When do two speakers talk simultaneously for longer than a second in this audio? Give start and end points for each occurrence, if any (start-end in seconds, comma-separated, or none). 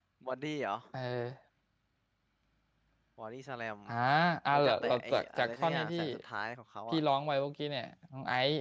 4.5-5.9